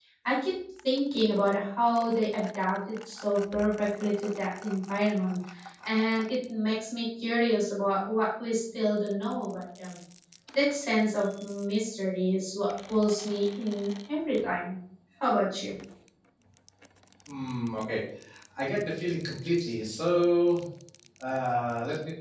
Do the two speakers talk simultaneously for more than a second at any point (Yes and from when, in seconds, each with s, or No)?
No